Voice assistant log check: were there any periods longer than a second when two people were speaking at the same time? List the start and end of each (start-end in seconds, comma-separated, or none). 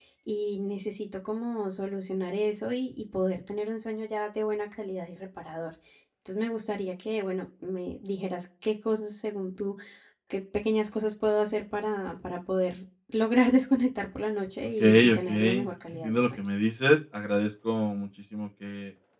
14.8-16.3